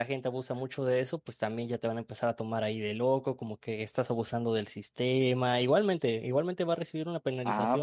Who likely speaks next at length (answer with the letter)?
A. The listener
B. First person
A